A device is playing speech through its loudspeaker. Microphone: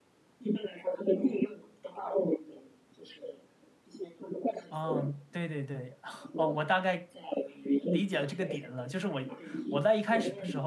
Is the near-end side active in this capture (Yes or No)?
Yes